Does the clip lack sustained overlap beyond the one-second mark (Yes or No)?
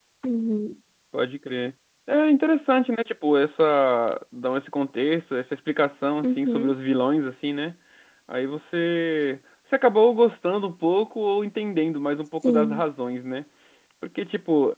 Yes